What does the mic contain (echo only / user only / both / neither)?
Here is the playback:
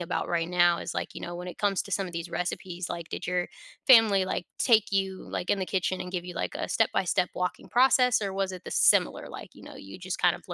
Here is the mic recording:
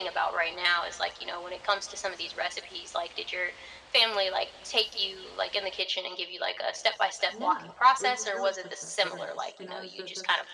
both